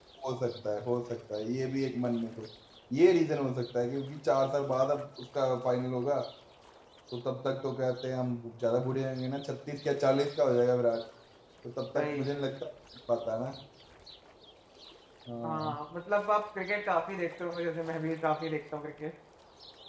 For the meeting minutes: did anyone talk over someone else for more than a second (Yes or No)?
No